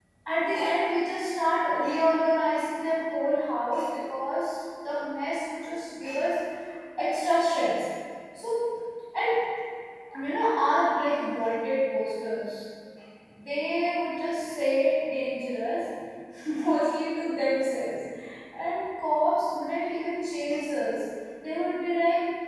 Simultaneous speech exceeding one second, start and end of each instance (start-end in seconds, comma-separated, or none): none